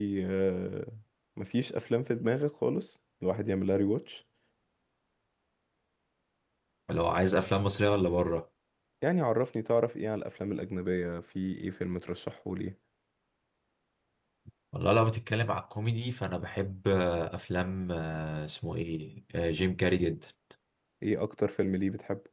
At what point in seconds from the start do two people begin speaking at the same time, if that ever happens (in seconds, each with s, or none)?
none